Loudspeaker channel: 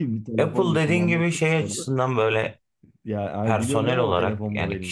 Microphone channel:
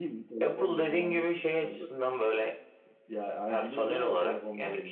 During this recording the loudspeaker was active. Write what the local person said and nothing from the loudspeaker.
none

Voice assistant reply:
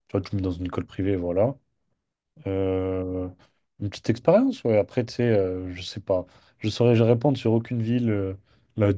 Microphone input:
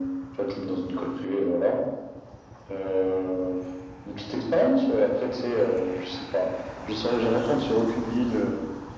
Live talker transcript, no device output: none

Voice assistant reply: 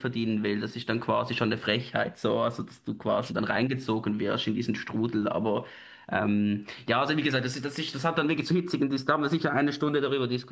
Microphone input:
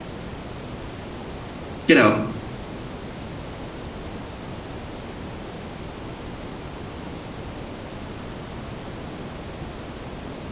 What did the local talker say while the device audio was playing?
genau.

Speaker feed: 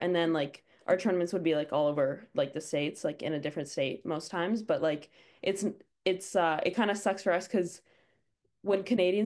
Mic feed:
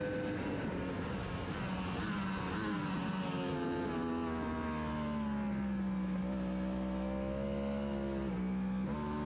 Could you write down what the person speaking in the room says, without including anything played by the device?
none

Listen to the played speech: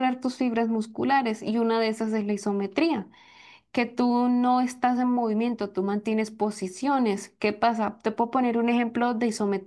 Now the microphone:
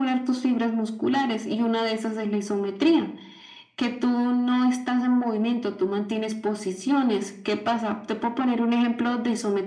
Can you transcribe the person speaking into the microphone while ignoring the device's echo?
none

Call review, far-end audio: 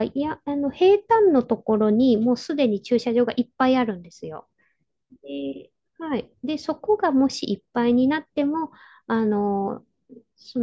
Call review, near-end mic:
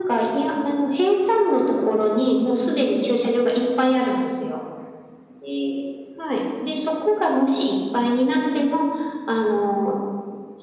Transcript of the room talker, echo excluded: none

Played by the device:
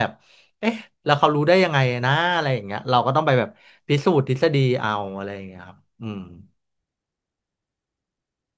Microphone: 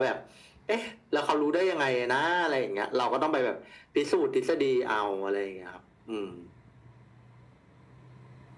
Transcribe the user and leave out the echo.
none

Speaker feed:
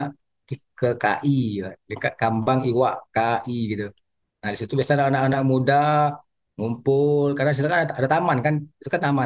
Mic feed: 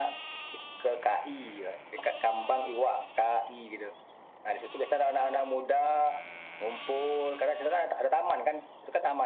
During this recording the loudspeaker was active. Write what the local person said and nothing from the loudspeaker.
none

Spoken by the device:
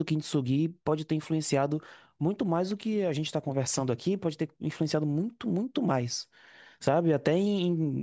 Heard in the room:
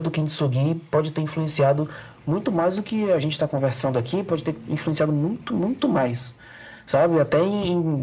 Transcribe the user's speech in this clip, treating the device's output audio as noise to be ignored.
none

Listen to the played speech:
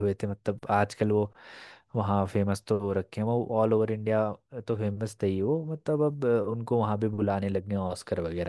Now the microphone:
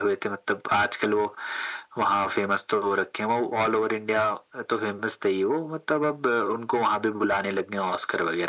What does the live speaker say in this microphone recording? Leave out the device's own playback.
none

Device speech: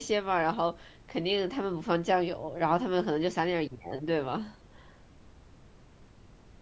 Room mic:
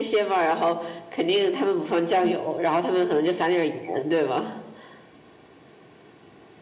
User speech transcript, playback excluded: 瓶，

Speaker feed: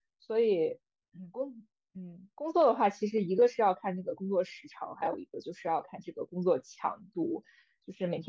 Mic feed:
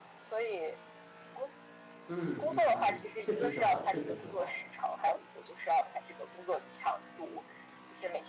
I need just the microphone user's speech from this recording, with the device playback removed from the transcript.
嗯嗯嗯，确实挺好，确实挺好。

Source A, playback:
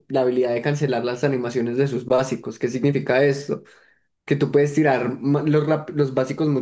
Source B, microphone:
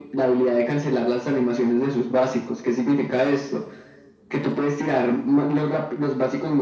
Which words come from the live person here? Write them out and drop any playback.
none

